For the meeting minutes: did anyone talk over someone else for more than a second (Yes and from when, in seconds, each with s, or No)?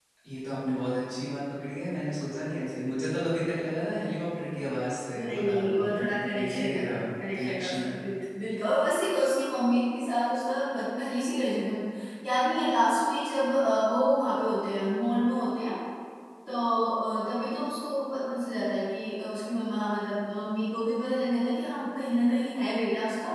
Yes, from 5.1 s